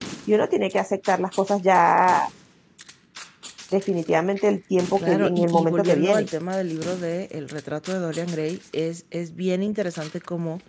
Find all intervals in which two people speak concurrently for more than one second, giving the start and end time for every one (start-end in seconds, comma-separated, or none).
5.0-6.3